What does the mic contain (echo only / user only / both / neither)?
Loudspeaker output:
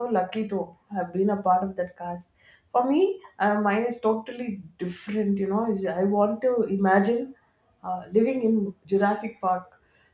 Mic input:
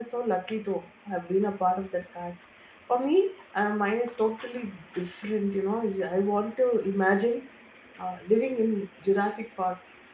echo only